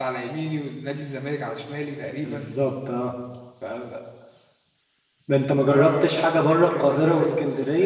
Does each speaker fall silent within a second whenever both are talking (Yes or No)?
No